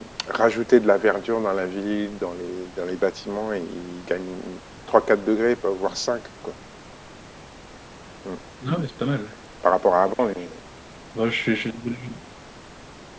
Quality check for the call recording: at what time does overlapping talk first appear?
none

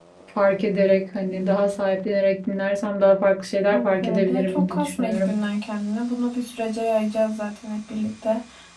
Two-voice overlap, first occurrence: 3.7 s

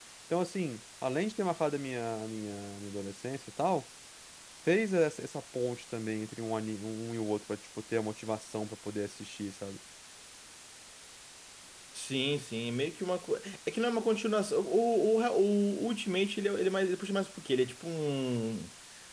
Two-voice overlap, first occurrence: none

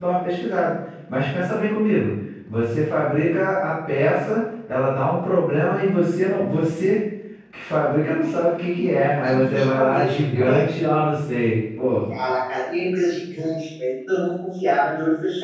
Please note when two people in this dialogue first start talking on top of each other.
9.2 s

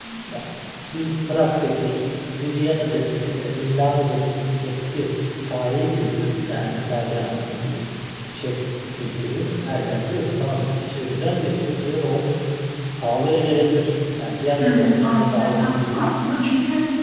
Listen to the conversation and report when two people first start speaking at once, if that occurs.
14.6 s

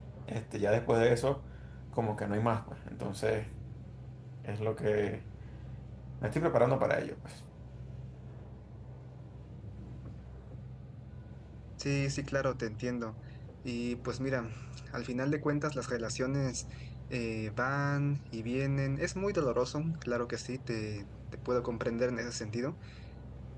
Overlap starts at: none

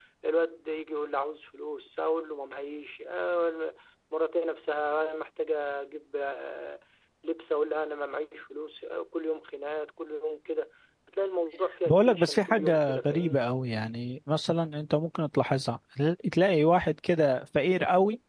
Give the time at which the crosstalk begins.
11.9 s

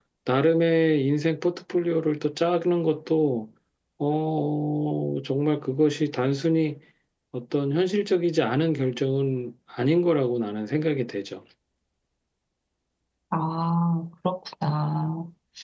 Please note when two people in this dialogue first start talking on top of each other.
none

